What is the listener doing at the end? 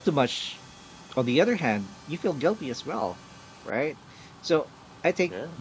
listening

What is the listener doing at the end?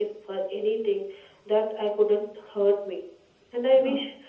listening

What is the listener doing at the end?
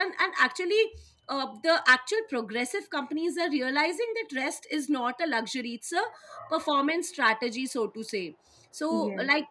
listening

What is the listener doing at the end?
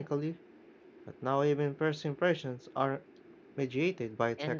taking over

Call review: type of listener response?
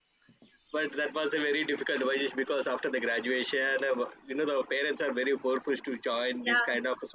listening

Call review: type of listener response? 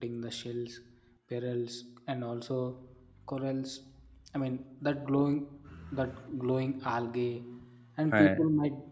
listening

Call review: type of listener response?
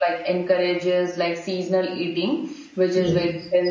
listening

